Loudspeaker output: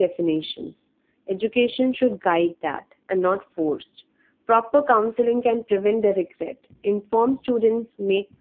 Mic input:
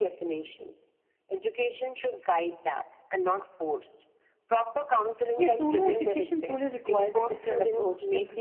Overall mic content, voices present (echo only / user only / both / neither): both